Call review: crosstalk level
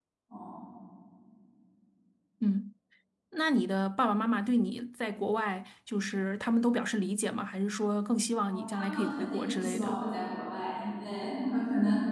present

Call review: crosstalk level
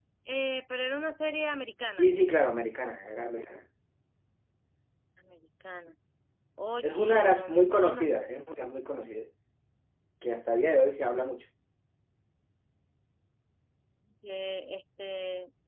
present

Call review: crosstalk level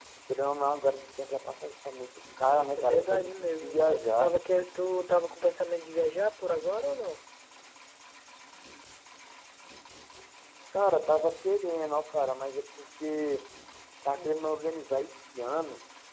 present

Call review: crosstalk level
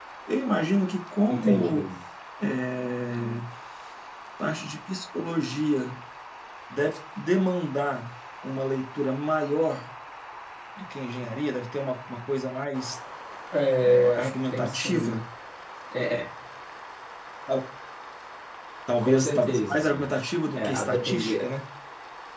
present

